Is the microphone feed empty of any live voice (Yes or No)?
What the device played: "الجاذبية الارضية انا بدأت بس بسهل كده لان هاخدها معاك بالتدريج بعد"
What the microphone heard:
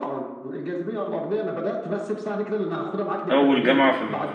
No